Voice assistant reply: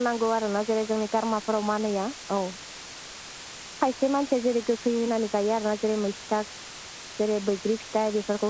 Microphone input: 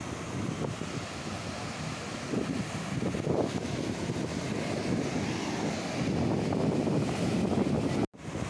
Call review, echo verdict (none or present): none